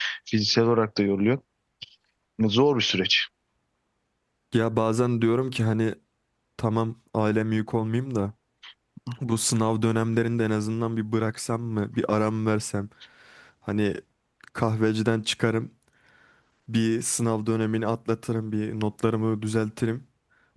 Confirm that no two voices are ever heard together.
Yes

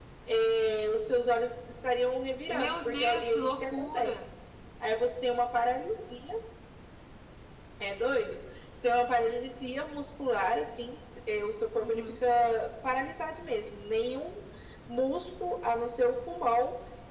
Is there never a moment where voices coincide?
No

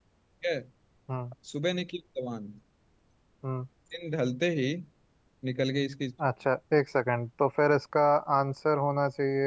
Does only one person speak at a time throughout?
Yes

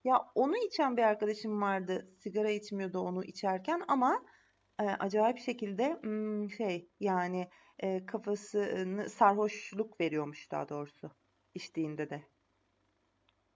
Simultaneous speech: No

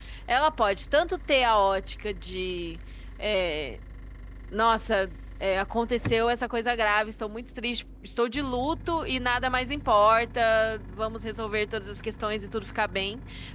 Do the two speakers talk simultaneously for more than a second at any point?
No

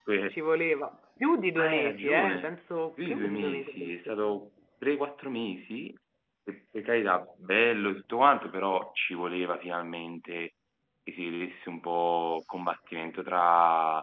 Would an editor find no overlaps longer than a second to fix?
No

